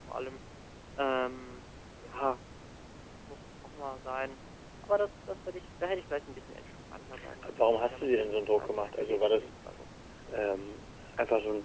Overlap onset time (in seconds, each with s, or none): 7.4 s